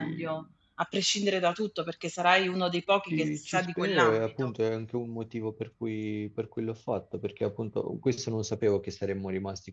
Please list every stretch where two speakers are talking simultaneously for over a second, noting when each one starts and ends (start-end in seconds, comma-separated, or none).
3.1-4.5